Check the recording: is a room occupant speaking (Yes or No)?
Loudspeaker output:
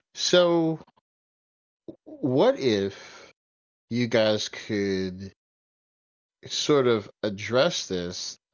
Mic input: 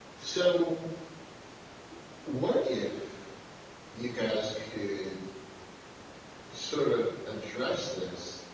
No